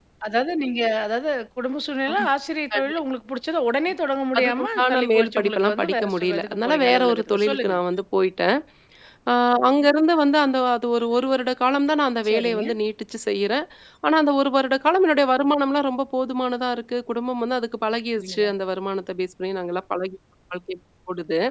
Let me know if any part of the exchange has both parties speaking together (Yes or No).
Yes